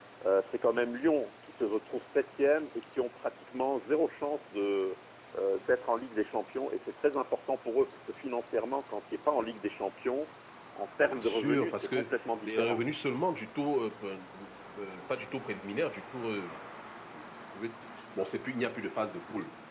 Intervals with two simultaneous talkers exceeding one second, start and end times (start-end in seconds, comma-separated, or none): 11.1-12.8